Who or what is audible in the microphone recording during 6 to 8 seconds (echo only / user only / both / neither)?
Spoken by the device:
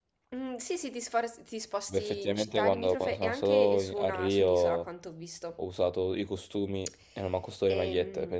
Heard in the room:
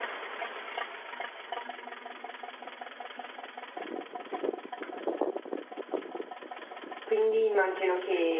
user only